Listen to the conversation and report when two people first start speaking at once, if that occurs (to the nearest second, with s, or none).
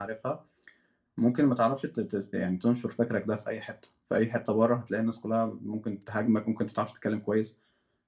none